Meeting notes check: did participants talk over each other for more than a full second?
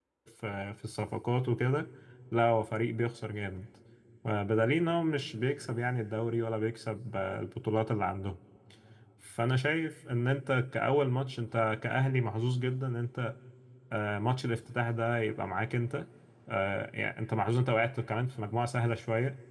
No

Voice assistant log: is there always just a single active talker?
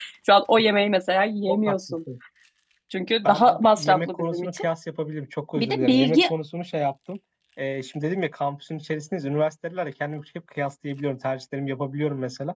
No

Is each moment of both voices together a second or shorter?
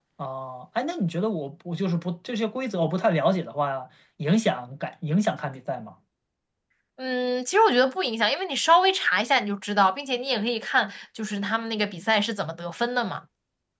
Yes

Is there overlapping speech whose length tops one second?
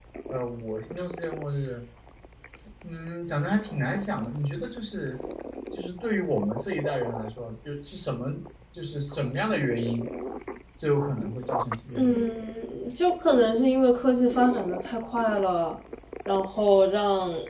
No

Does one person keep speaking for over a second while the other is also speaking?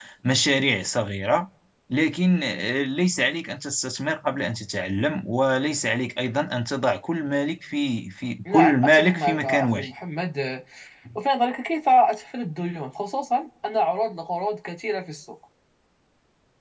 Yes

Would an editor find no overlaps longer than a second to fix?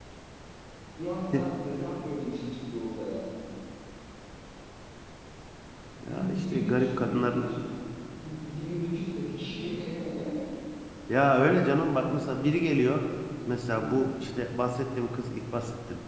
No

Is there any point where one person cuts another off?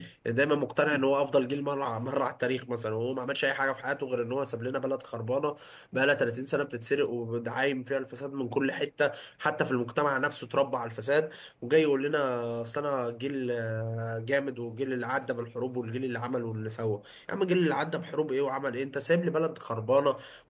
No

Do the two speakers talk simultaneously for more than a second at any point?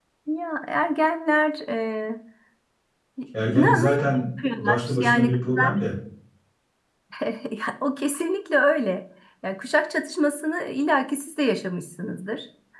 Yes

